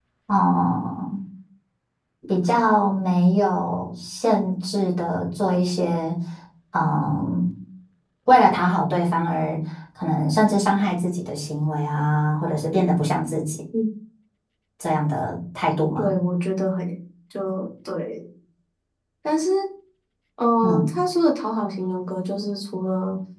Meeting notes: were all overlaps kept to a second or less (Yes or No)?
Yes